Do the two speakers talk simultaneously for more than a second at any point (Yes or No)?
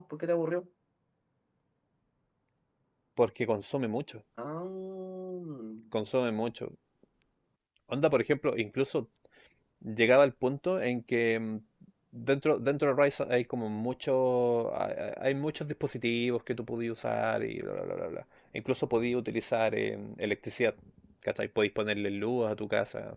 No